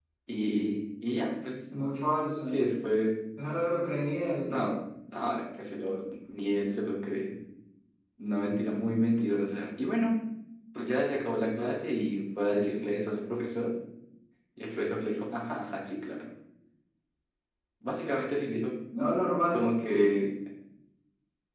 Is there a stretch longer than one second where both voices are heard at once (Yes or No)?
No